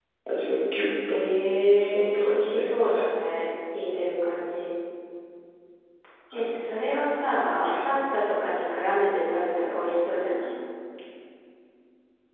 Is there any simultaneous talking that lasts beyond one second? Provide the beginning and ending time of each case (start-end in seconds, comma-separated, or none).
1.8-3.1